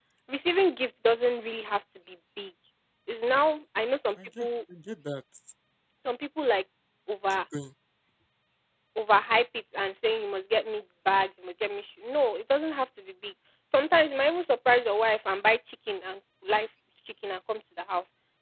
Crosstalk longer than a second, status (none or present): none